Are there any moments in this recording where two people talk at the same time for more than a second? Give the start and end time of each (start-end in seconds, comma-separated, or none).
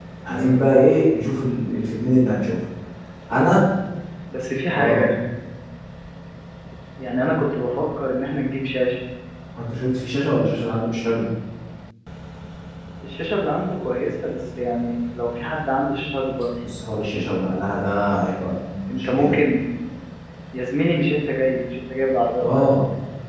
none